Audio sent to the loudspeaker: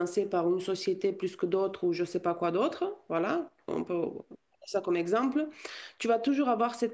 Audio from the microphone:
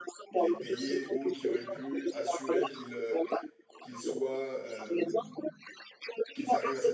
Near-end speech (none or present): present